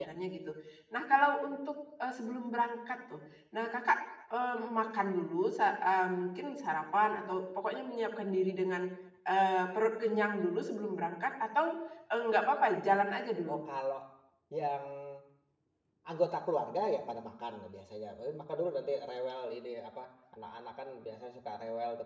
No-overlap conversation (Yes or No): Yes